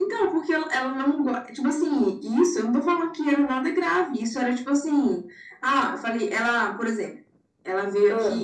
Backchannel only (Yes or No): Yes